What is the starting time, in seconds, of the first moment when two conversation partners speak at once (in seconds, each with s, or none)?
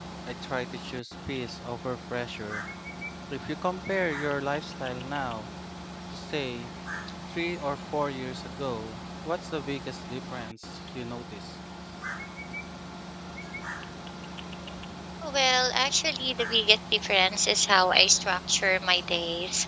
none